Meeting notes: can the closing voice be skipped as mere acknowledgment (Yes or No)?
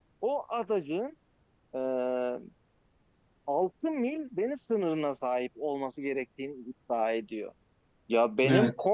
Yes